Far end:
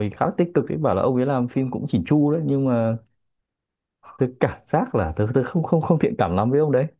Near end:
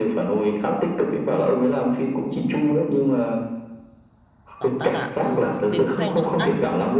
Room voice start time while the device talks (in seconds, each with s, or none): 4.6 s